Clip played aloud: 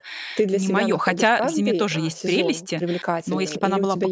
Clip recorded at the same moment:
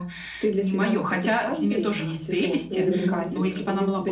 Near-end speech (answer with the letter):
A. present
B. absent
A